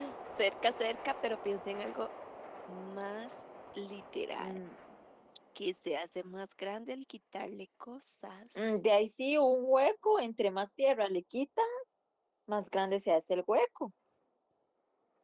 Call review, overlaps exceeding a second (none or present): none